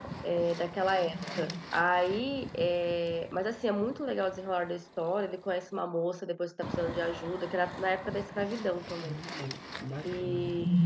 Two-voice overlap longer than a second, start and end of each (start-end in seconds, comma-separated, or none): none